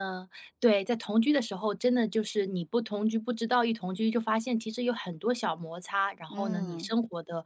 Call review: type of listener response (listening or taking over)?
listening